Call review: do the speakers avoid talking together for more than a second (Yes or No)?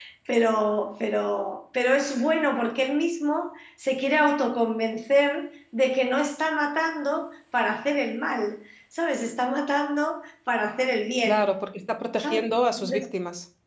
Yes